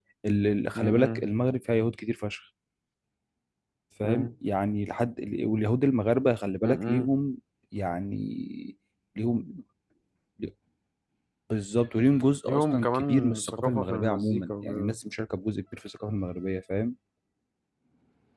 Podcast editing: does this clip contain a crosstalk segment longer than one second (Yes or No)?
Yes